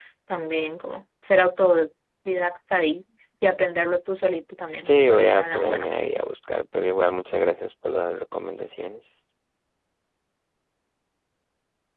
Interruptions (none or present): present